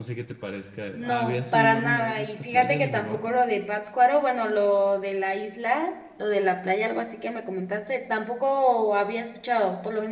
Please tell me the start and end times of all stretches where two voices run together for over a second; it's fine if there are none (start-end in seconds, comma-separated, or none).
1.0-3.3